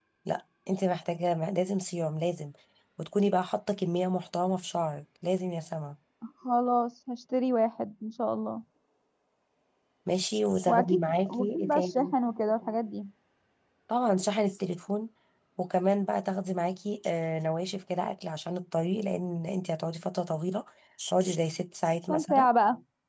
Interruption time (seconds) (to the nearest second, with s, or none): 11 s